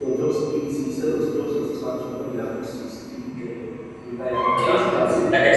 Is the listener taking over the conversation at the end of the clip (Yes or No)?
Yes